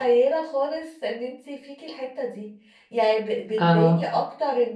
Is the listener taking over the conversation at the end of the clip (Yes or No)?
No